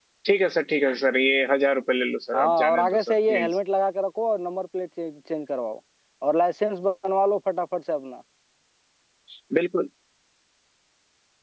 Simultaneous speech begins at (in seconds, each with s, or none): 2.3 s